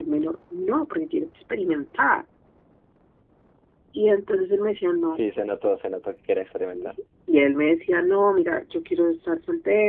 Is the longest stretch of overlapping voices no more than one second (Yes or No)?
Yes